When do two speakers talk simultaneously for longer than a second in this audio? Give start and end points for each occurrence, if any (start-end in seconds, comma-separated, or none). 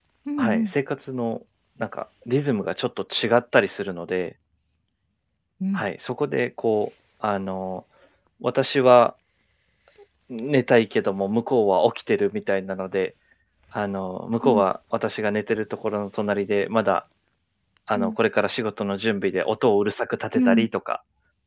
none